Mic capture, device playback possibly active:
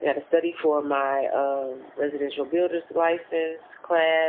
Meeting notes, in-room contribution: present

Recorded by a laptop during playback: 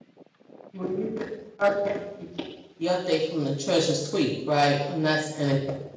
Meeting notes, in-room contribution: present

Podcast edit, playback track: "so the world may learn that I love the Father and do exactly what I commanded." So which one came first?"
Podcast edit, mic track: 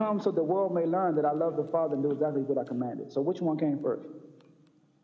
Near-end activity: none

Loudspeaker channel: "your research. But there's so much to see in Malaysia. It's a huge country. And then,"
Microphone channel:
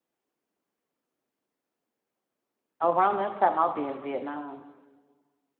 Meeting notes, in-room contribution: present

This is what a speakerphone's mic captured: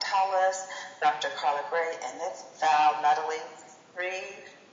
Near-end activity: none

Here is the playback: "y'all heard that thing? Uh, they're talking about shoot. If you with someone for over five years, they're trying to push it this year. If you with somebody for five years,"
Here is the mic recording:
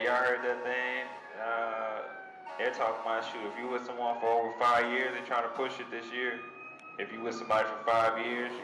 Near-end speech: none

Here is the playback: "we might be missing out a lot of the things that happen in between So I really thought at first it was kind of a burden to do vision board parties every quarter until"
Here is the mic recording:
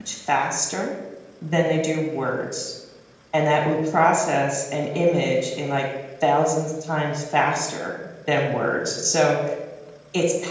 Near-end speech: present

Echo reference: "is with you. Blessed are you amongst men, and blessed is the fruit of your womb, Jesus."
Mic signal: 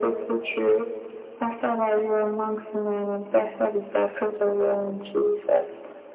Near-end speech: none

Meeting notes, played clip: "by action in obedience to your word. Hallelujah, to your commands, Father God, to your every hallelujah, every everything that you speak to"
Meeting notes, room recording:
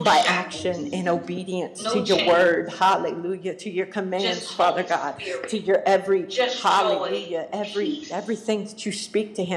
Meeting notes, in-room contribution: present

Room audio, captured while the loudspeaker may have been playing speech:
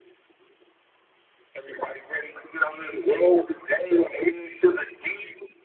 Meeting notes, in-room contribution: none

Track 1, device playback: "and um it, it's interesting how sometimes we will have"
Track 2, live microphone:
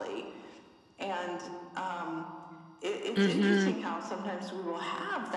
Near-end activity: present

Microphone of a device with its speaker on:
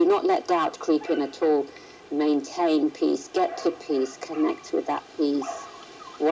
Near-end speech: none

